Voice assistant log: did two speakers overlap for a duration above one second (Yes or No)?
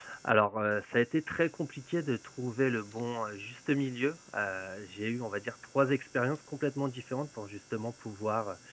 No